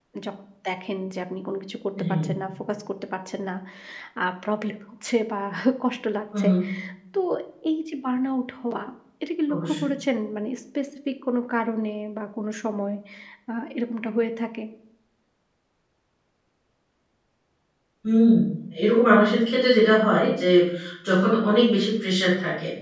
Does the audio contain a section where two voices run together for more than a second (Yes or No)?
No